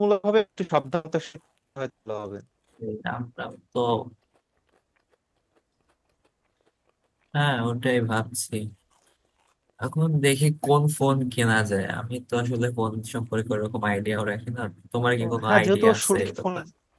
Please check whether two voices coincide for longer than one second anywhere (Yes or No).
Yes